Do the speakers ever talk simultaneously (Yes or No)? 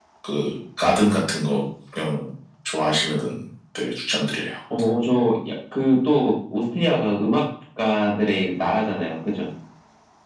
No